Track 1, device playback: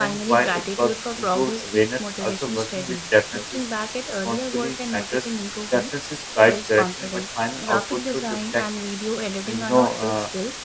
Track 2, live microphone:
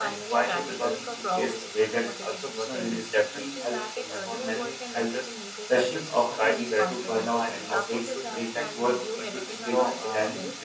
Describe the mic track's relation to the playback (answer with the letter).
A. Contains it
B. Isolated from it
A